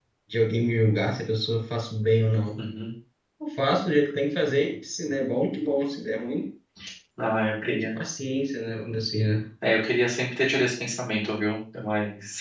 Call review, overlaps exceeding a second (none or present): none